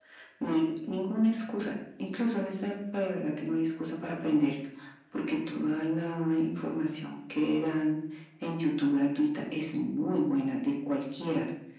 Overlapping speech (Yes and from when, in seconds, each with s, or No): No